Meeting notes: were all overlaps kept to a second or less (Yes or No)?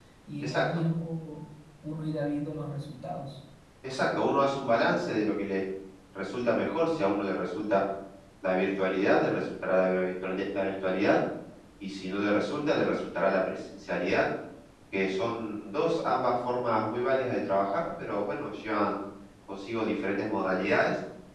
Yes